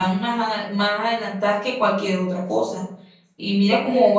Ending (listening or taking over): listening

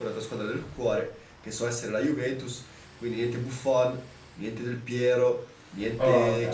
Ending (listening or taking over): listening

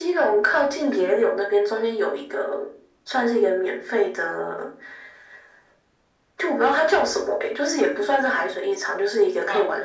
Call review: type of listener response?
listening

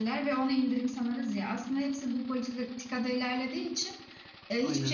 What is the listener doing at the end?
listening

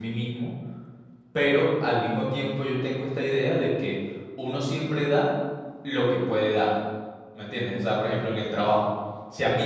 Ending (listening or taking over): listening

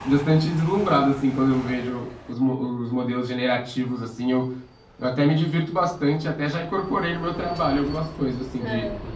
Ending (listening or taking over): listening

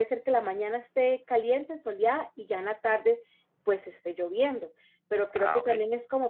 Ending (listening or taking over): listening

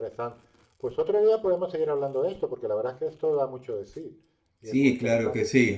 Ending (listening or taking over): taking over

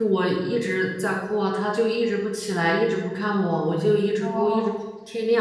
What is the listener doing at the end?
listening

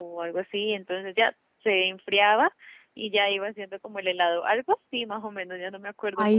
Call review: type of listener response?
taking over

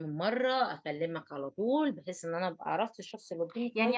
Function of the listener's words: taking over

